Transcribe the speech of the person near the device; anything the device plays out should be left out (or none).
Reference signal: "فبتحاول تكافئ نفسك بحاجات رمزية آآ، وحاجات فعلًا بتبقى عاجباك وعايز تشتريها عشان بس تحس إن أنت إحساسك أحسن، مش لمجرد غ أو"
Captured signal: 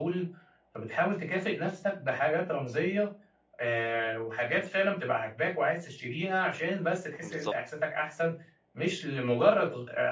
بالضبط،